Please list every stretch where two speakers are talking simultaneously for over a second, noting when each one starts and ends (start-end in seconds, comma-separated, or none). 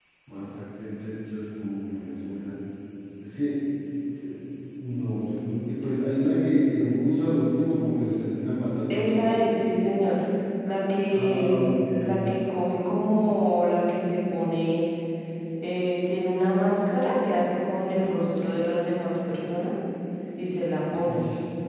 none